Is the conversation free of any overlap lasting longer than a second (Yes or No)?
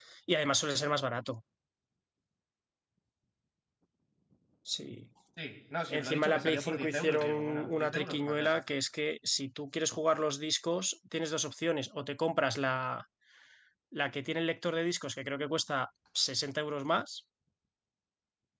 No